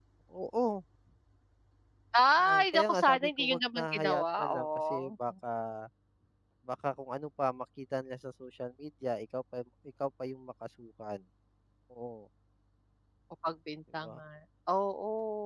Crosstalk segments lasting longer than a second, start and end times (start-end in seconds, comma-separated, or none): 2.4-5.1